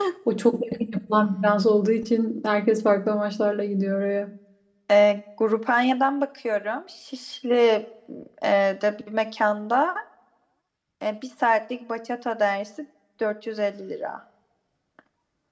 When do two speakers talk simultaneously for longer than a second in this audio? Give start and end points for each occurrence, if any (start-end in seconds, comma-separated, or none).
none